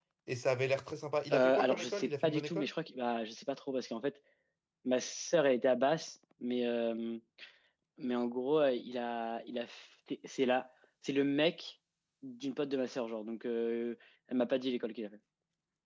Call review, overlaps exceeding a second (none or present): present